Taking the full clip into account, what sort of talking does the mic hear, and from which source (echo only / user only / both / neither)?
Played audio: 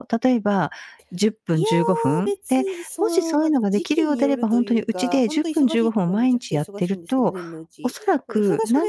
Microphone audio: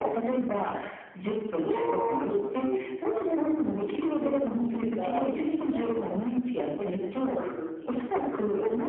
echo only